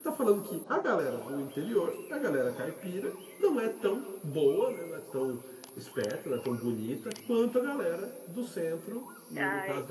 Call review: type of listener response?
taking over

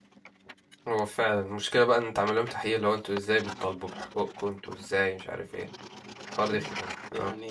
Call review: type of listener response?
taking over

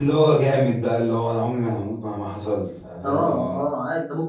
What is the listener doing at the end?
taking over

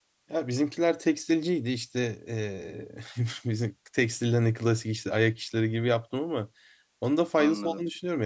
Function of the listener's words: listening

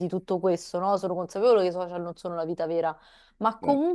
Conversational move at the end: listening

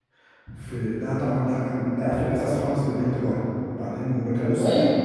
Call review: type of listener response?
listening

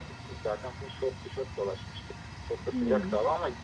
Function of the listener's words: listening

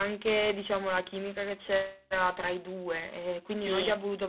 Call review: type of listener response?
listening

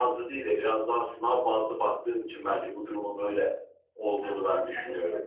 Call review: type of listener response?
taking over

